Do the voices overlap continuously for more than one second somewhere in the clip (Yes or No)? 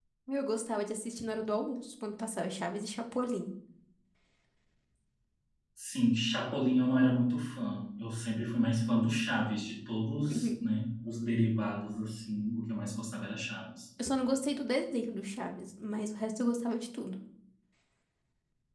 No